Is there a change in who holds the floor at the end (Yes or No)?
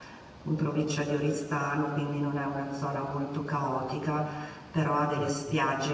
No